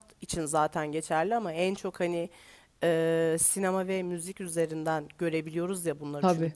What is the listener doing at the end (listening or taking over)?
listening